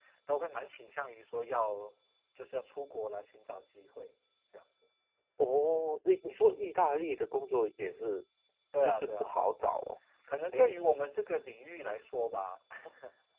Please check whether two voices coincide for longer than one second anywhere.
No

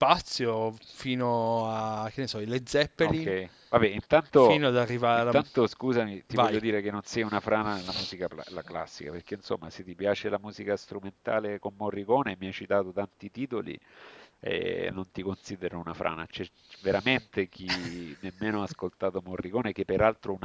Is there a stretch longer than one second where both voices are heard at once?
No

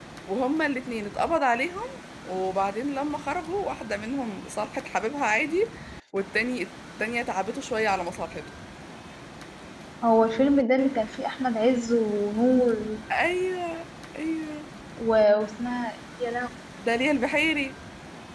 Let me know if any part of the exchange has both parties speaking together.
No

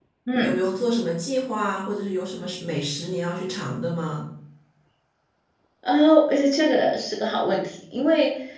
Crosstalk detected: No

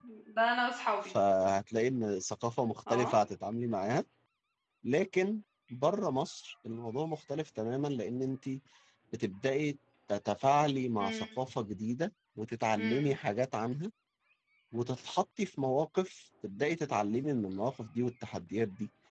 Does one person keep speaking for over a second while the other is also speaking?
No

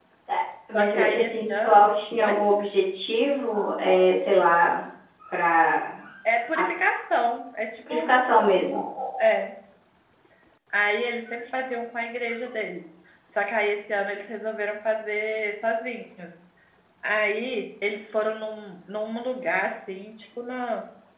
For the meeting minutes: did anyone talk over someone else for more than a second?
Yes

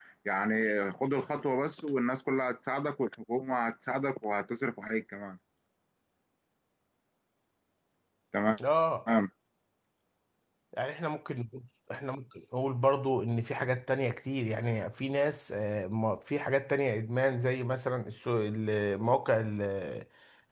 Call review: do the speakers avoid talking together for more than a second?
Yes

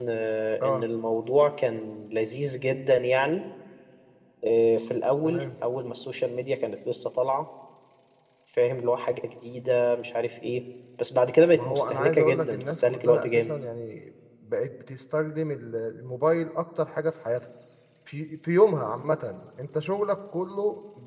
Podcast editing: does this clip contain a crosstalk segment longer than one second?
Yes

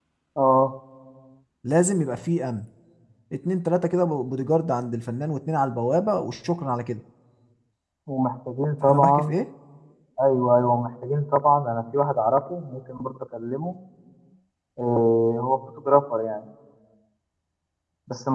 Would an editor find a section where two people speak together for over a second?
No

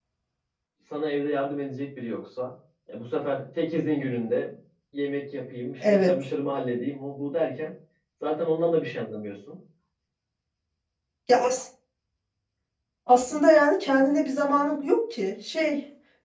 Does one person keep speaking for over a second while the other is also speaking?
No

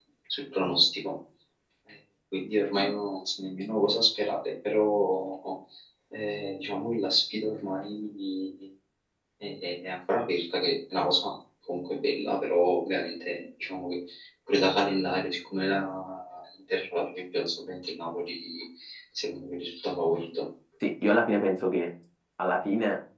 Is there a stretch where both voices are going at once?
No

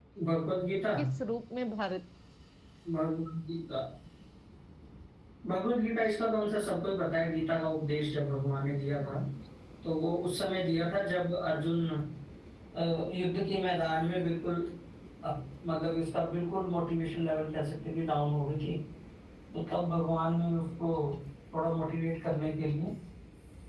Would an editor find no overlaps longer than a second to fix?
Yes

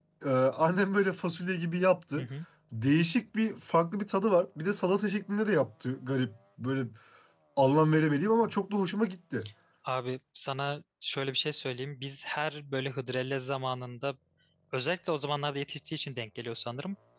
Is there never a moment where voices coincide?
Yes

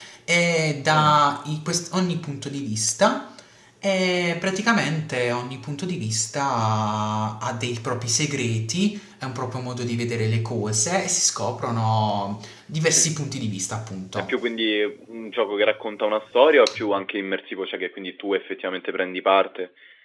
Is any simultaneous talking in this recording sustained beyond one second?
No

